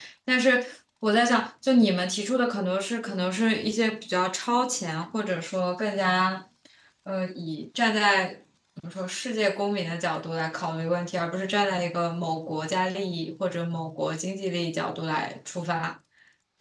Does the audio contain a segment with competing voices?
No

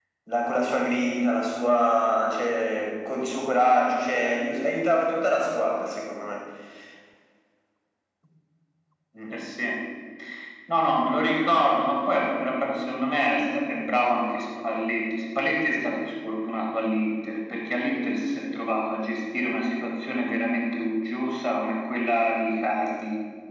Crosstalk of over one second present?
No

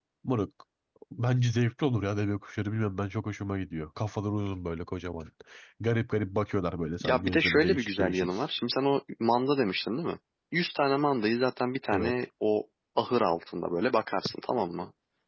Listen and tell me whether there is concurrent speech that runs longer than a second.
Yes, from 7.0 s

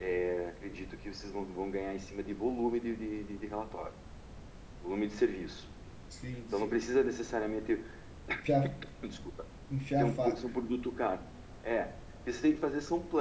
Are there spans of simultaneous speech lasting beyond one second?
No

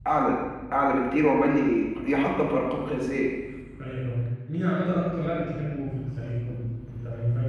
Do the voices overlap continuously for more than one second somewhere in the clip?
No

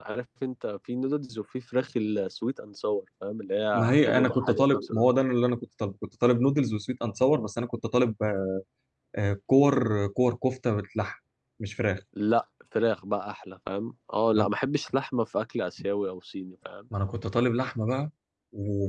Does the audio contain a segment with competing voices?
Yes, from 3.7 s

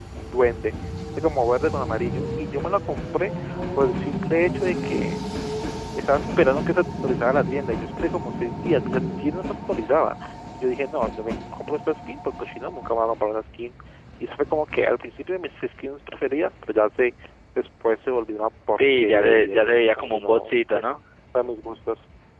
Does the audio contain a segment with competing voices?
Yes, from 18.8 s

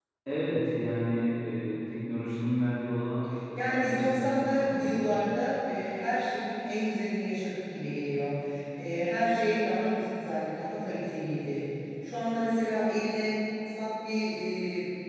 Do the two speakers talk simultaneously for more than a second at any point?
Yes, from 3.6 s

